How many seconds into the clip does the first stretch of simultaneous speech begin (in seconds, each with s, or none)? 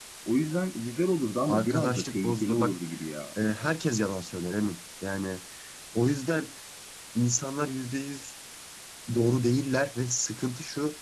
1.5 s